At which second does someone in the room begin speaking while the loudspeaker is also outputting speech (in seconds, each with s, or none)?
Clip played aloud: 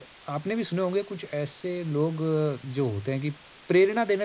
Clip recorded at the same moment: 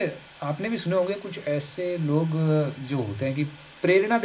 none